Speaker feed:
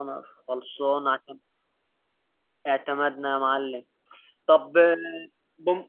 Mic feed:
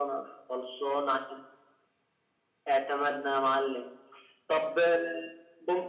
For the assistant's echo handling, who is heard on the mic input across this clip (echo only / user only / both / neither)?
echo only